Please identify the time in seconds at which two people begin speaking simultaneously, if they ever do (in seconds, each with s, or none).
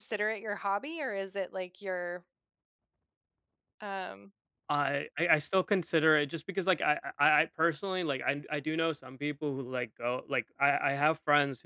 none